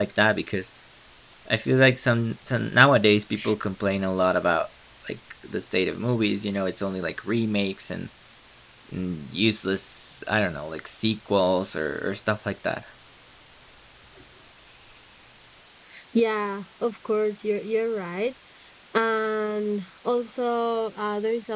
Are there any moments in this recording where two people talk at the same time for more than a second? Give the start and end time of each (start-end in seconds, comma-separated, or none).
none